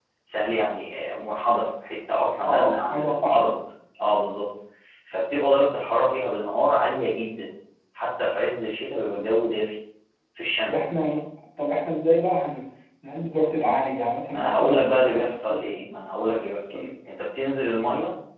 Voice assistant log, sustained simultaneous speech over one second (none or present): present